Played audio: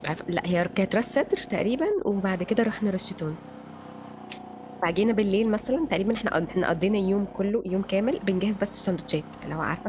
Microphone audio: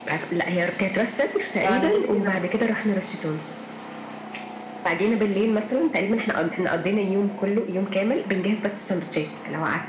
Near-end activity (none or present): present